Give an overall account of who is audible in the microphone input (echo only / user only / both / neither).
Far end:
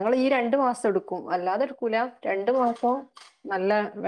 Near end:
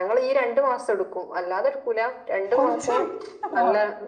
both